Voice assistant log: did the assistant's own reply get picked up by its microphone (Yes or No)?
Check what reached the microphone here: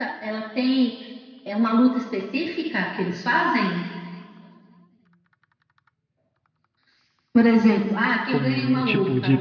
Yes